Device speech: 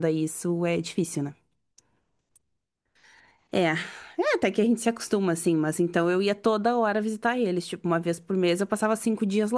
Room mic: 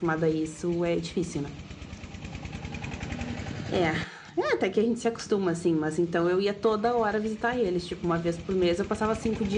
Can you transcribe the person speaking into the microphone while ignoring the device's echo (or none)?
none